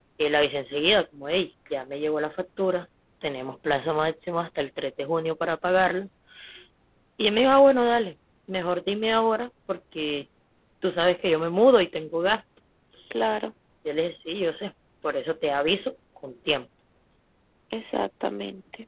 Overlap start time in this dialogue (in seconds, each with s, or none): none